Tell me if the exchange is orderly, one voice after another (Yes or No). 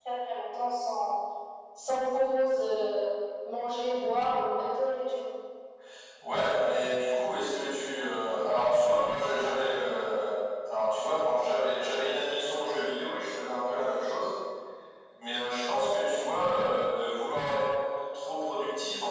Yes